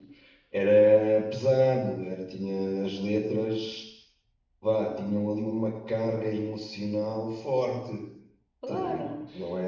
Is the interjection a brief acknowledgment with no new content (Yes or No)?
No